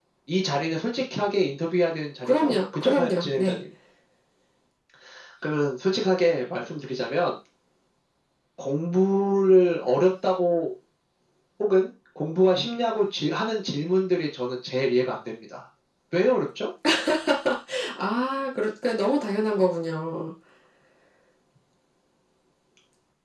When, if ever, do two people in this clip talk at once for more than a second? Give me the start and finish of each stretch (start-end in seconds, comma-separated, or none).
2.2-3.6